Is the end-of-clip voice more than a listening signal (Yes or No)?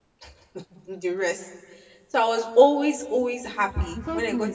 Yes